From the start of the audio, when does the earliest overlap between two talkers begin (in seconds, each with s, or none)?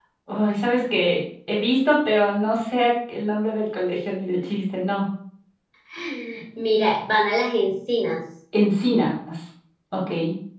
none